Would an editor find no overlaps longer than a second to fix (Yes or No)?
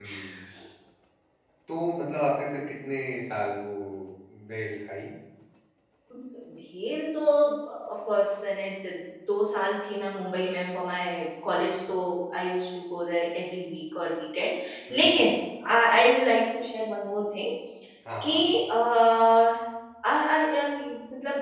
Yes